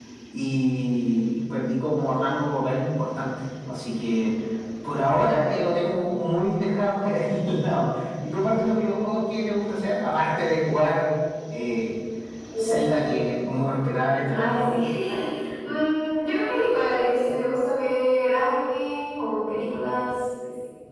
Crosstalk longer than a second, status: none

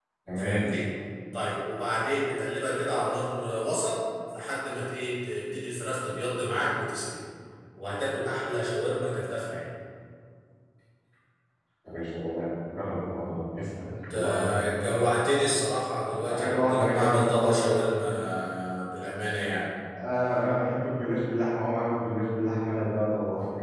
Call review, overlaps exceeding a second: present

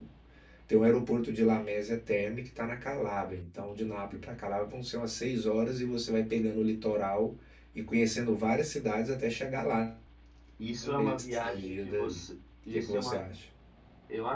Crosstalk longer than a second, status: present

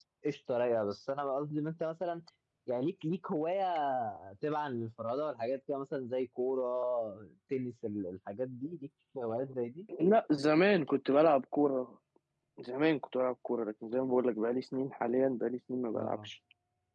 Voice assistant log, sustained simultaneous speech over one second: none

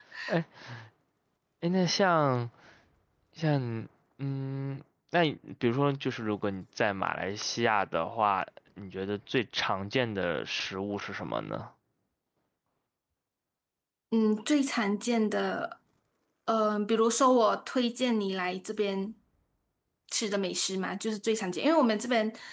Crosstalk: none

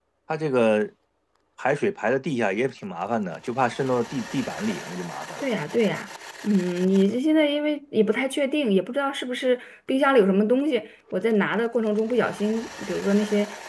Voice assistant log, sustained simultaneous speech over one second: none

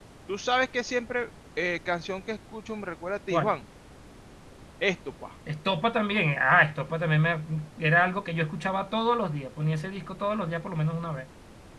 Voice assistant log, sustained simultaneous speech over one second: none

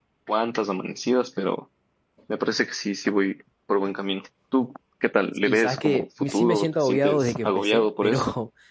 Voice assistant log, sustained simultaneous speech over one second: present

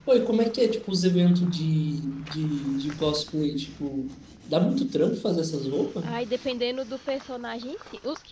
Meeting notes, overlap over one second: none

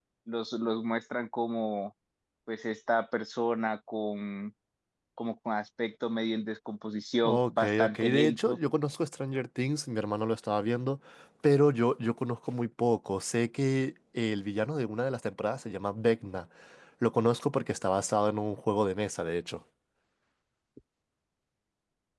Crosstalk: present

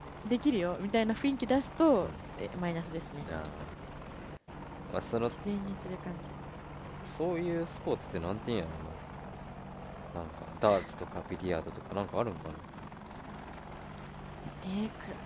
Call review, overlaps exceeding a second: none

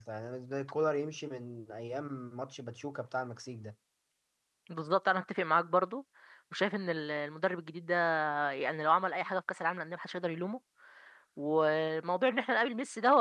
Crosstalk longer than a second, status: none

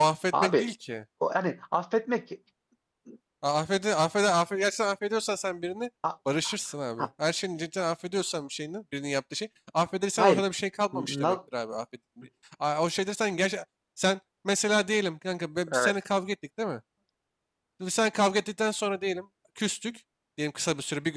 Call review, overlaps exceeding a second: none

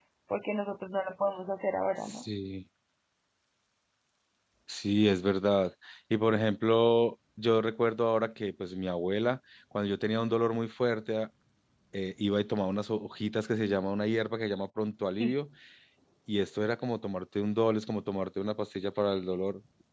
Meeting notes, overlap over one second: none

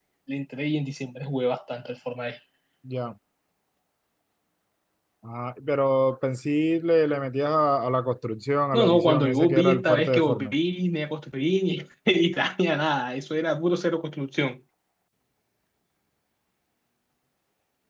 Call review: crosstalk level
present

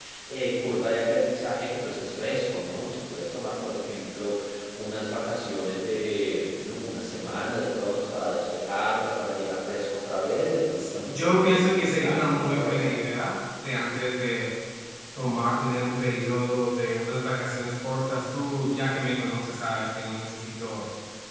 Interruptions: present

